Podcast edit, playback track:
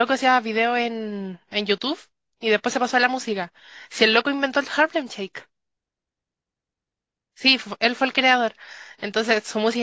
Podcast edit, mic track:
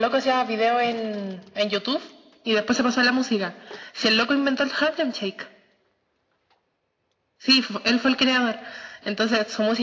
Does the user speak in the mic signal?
No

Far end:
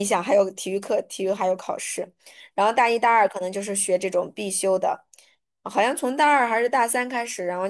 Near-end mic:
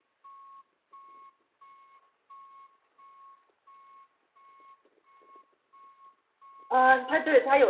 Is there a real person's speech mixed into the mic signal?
Yes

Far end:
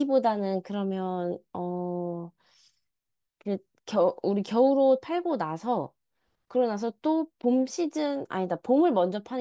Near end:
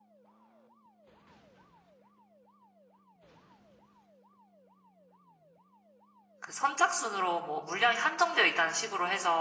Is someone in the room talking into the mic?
Yes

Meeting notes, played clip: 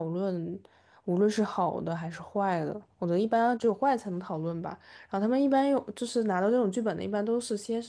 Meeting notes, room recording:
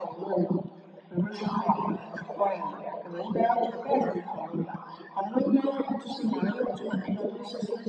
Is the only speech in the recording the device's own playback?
Yes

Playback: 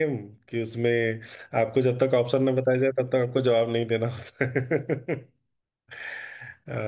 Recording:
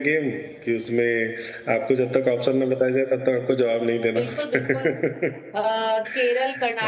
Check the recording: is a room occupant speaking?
Yes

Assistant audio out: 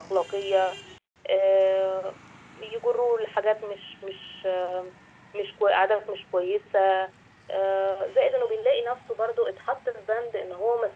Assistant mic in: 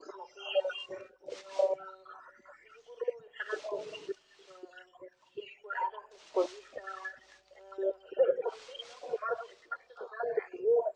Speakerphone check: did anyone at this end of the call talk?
No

